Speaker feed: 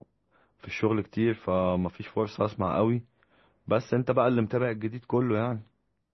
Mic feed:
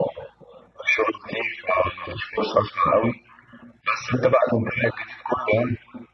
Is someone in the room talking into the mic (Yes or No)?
No